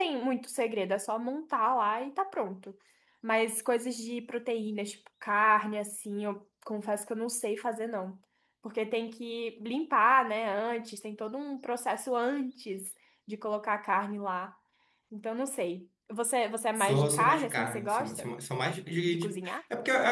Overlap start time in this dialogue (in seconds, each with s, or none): 16.8 s